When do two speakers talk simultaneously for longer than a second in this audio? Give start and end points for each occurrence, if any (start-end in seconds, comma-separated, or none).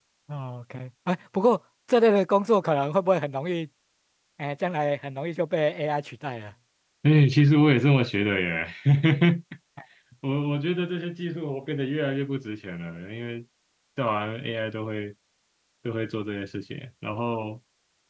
none